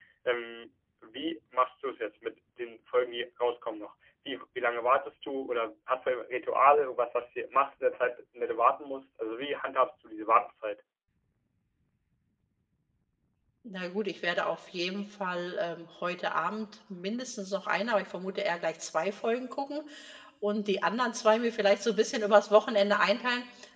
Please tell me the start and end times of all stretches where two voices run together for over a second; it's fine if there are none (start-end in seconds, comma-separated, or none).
none